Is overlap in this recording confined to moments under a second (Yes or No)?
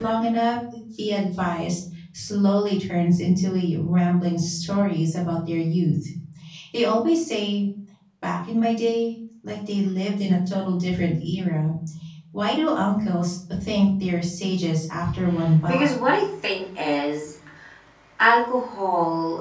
Yes